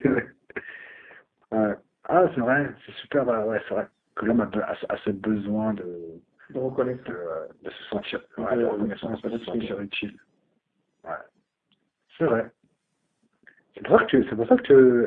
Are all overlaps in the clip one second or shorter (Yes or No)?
No